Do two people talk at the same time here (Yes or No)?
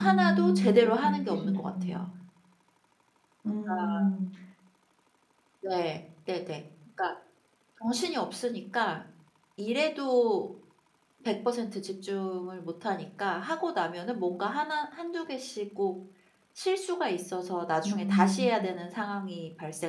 Yes